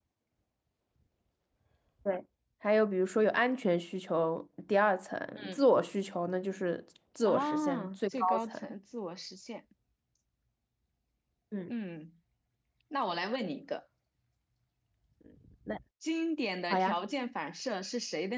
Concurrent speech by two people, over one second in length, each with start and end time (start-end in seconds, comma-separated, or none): 7.3-8.6